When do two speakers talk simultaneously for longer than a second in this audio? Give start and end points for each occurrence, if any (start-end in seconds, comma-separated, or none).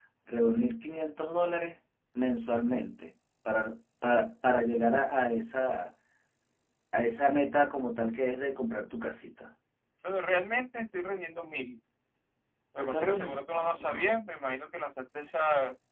12.8-14.1